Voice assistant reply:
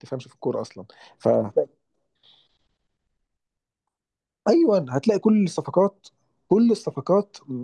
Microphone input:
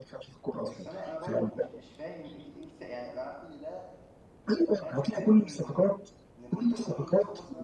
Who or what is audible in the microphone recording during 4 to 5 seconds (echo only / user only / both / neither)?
both